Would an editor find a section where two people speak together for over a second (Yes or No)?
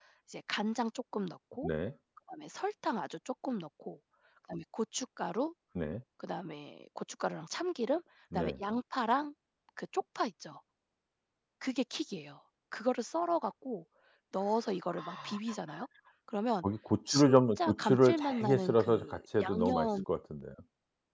Yes